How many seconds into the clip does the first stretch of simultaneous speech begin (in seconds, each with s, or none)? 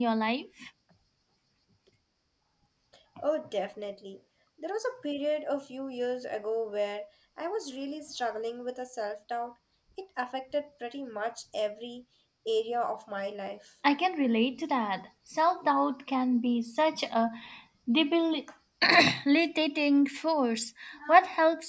none